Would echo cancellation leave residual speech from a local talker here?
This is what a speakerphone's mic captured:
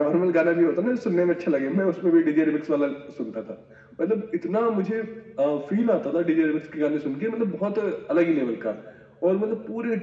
No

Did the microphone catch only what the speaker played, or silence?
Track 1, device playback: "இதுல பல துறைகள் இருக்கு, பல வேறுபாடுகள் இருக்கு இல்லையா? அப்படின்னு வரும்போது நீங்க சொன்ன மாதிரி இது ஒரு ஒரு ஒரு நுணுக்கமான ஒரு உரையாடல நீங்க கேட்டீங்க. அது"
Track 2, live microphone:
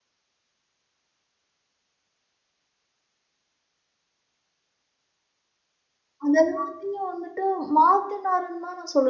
No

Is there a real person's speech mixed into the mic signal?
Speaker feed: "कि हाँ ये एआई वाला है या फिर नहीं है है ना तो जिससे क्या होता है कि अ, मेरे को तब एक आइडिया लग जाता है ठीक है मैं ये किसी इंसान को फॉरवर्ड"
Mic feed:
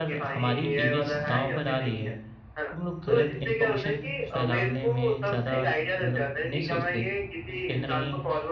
Yes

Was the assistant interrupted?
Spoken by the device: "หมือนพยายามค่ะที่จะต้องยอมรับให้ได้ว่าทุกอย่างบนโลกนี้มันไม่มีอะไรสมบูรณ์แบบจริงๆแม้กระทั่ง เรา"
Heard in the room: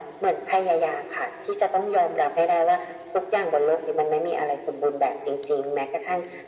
No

